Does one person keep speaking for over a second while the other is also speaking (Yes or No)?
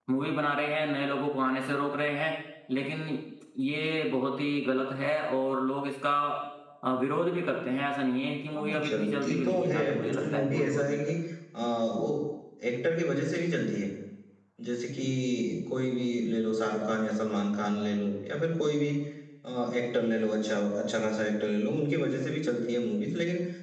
Yes